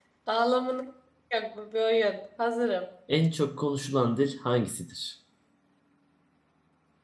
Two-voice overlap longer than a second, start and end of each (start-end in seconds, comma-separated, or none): none